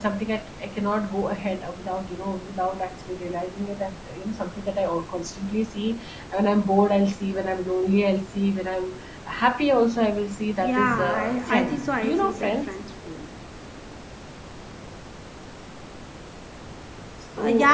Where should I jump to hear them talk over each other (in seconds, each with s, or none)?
10.6 s